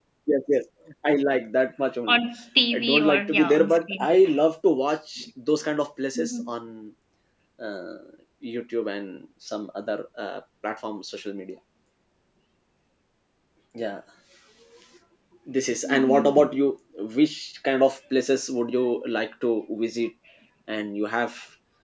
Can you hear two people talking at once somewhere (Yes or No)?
Yes